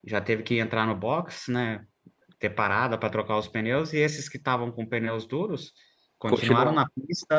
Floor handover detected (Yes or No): No